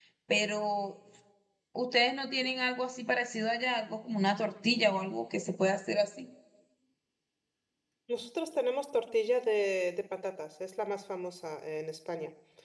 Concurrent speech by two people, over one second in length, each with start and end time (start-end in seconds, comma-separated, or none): none